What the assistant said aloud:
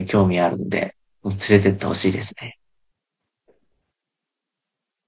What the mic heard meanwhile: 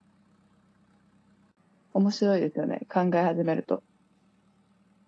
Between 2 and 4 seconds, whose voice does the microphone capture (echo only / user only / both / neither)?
user only